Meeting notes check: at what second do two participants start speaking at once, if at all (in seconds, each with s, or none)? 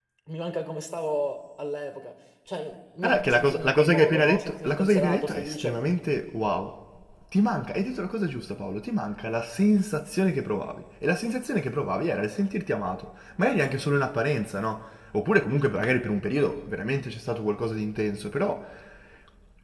3.0 s